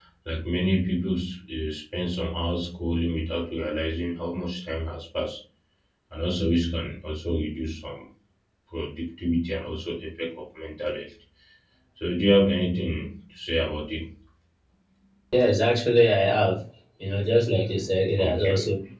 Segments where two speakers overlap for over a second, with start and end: none

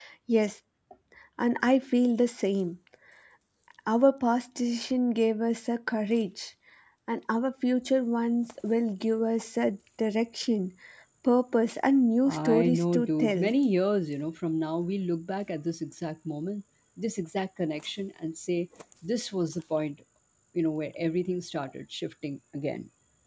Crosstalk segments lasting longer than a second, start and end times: 12.2-13.5

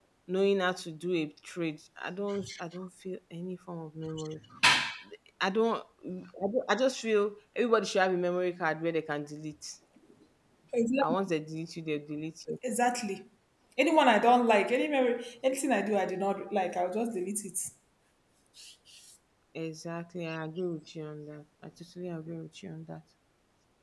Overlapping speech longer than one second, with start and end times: none

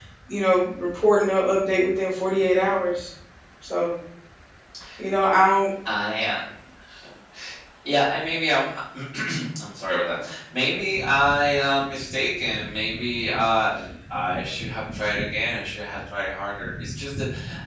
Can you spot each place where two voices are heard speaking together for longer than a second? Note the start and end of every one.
none

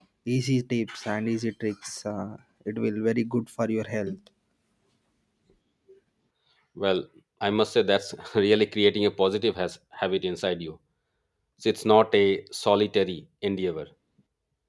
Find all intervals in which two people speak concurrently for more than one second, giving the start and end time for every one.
none

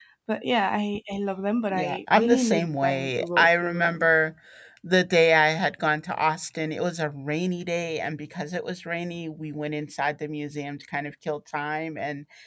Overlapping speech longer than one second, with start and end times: 1.7-4.1

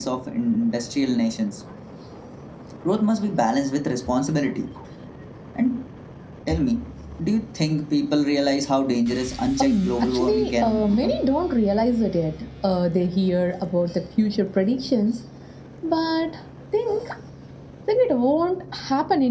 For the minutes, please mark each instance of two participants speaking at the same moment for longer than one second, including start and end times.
9.6-11.2

